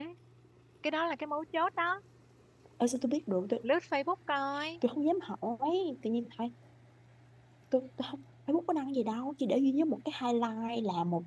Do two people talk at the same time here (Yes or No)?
No